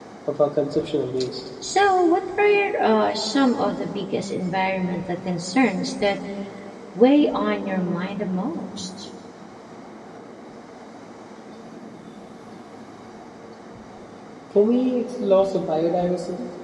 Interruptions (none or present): none